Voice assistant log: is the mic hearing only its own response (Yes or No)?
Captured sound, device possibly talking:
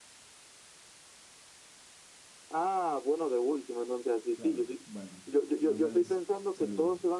No